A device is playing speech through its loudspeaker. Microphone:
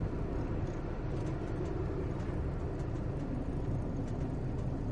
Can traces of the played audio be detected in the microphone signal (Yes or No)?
No